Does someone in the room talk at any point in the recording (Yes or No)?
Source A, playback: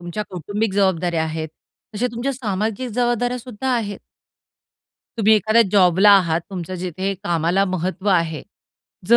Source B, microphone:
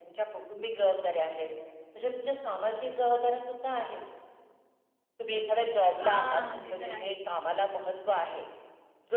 Yes